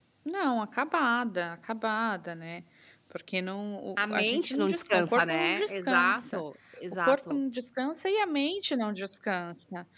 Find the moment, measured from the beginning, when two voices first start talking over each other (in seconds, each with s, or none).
4.0 s